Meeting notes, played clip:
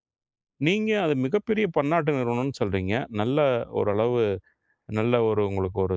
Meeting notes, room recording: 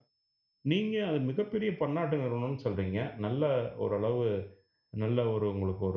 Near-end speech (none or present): none